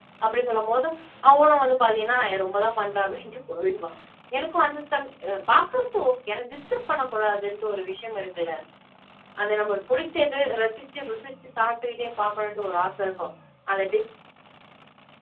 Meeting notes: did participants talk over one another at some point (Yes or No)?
No